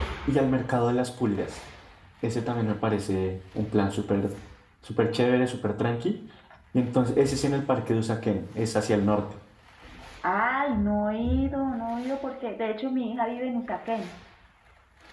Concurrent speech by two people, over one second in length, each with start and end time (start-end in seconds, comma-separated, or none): none